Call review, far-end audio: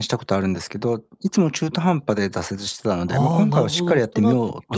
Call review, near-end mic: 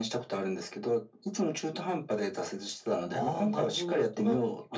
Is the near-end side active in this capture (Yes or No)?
No